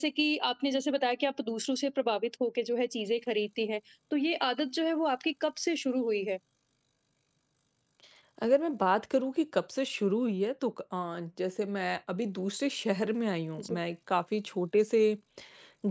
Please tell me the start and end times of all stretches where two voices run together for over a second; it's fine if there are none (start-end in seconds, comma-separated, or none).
none